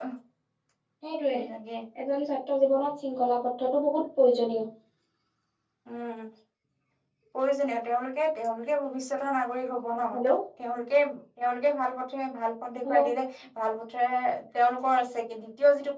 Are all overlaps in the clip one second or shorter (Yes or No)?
Yes